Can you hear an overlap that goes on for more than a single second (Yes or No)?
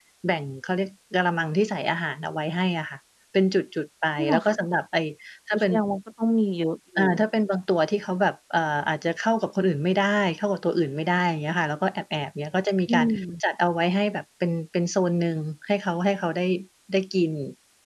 No